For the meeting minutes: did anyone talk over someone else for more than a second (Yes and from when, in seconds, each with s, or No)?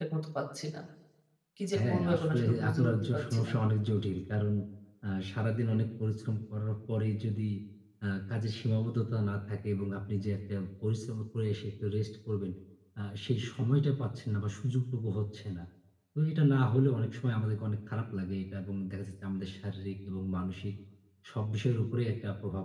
Yes, from 1.9 s